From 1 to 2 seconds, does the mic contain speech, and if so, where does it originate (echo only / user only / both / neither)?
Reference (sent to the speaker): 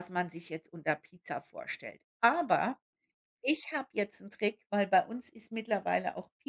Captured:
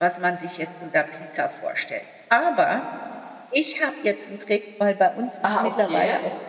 echo only